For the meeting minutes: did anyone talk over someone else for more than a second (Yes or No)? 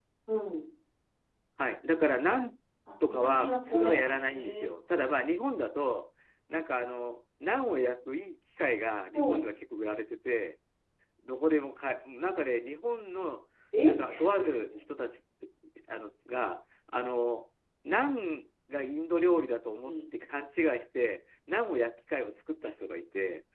Yes